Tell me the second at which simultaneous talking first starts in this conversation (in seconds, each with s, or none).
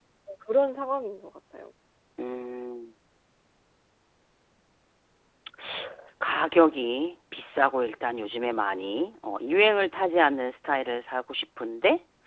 none